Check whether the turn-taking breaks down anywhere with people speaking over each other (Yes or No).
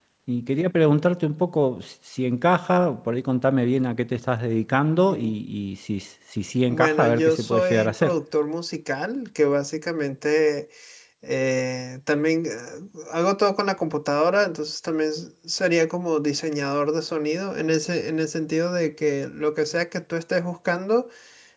Yes